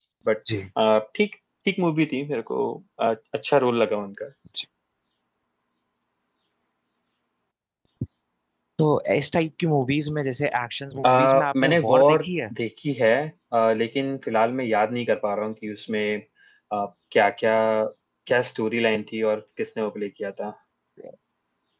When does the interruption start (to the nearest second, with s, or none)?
11 s